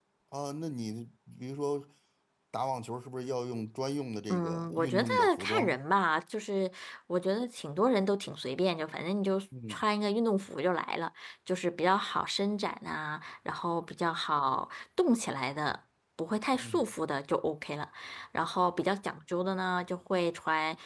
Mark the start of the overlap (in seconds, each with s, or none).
4.3 s